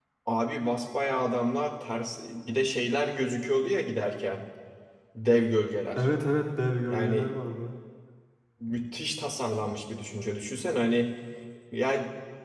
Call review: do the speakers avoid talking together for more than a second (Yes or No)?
Yes